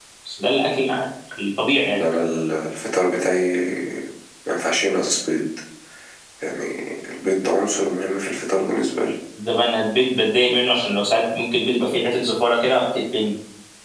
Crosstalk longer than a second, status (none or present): none